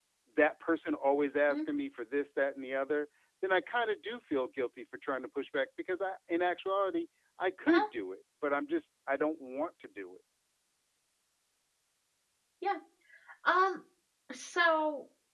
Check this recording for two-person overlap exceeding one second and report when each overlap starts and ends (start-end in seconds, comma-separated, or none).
none